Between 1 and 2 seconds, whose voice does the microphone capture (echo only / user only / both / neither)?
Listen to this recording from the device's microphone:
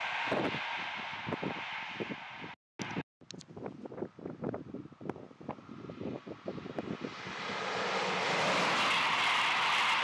neither